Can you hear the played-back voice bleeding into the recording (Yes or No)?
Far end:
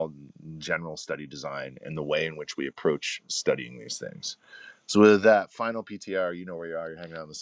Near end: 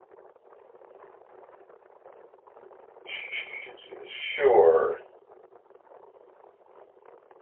No